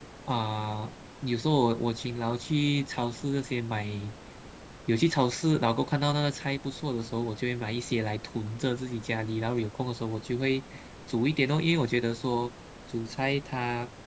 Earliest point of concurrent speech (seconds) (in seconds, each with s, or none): none